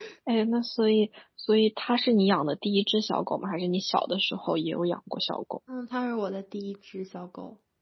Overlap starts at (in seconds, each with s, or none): none